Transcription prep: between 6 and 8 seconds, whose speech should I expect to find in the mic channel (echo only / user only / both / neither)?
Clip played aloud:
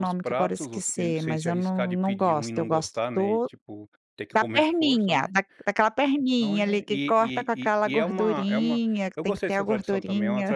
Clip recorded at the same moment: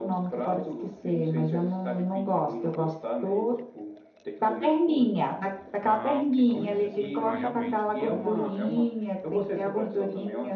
both